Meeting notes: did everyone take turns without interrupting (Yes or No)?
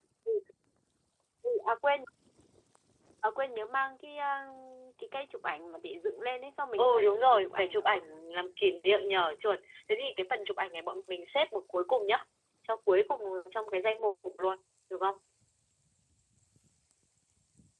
No